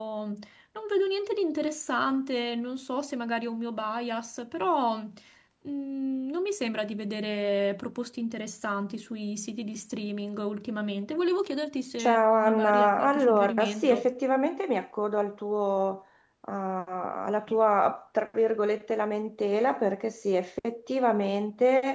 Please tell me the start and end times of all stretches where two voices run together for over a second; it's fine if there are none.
12.0-14.1

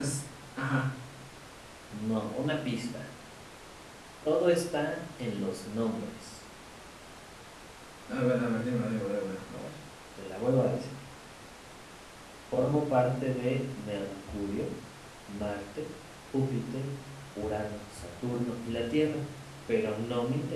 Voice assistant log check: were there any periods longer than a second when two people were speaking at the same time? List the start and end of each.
none

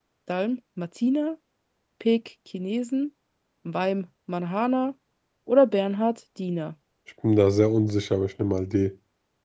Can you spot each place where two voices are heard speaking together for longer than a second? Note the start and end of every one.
none

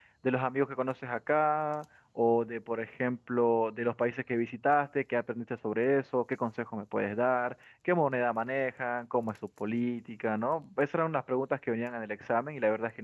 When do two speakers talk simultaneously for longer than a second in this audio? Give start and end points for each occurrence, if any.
none

